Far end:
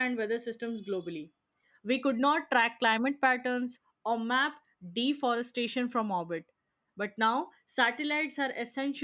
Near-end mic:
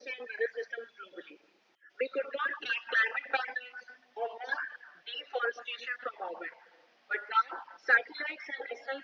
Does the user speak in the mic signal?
No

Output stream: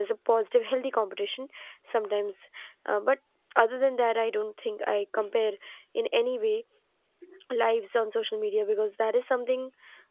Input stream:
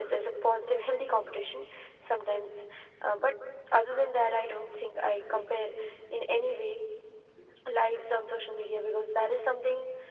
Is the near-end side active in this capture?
No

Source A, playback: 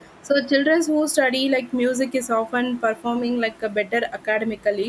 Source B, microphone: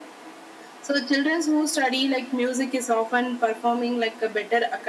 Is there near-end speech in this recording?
No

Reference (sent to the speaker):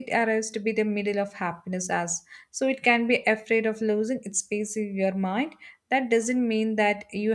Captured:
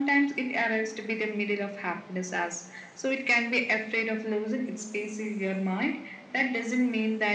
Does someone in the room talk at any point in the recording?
No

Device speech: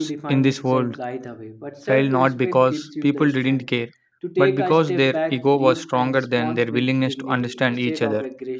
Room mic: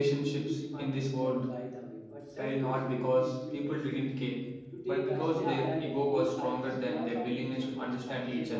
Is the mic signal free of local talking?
No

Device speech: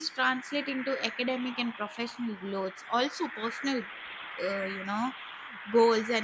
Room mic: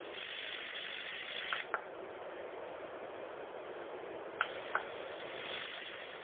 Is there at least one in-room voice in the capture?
No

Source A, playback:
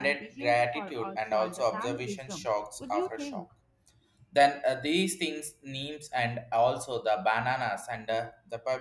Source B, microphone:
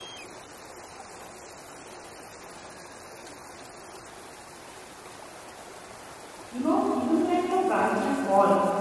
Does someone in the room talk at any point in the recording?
Yes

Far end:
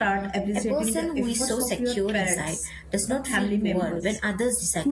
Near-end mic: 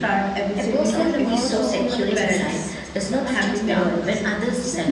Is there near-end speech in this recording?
Yes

